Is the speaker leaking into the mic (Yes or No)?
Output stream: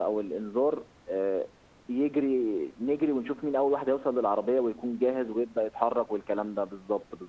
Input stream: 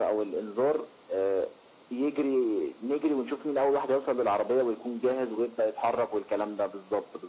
Yes